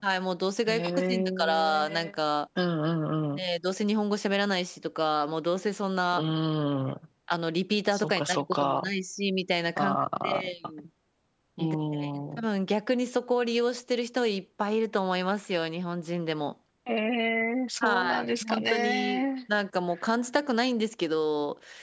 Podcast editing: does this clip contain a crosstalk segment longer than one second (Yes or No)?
Yes